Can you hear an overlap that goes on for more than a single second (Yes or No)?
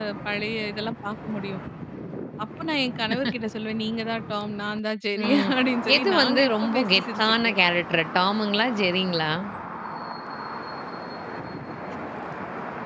Yes